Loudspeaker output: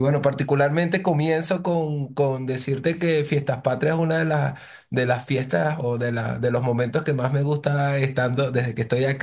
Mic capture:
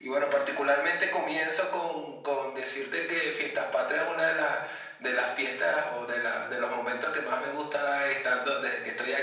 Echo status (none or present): present